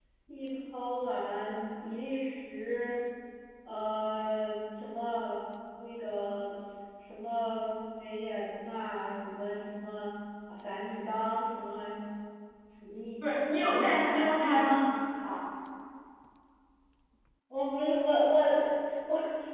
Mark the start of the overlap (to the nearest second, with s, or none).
13 s